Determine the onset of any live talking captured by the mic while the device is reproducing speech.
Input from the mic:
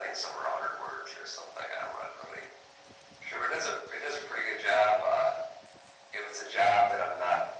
none

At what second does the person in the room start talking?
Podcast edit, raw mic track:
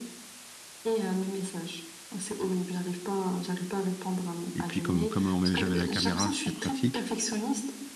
4.5 s

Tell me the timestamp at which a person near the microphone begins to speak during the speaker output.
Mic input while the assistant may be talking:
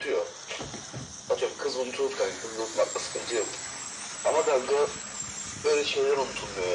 none

